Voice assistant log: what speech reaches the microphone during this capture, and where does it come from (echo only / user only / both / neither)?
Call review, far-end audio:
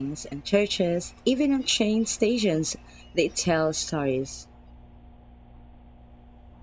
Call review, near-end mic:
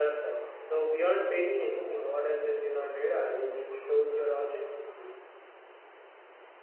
user only